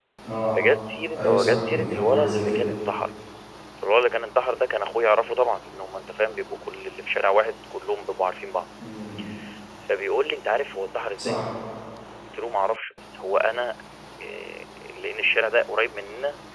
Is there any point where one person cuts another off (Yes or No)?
Yes